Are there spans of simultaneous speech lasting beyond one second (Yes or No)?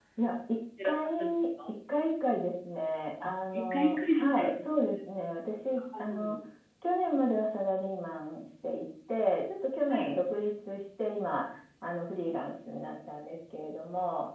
Yes